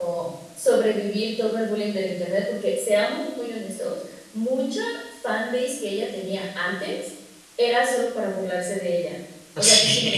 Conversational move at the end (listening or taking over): listening